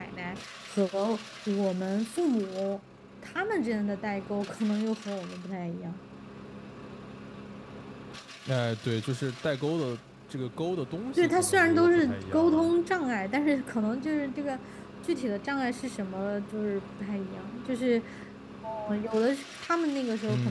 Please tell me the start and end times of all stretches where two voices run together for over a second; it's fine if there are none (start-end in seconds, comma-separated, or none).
11.2-12.7